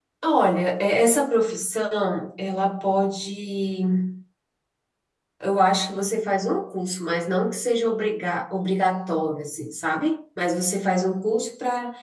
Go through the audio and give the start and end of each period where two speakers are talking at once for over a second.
none

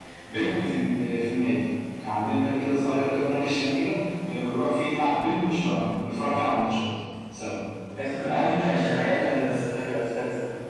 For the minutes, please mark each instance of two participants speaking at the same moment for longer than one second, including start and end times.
8.2-9.5

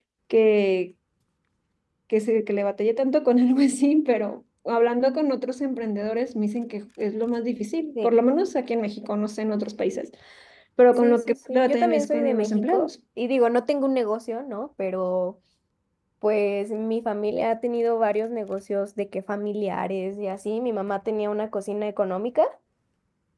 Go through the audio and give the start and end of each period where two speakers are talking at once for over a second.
11.0-12.9

